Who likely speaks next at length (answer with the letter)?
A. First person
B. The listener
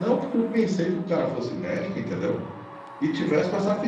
A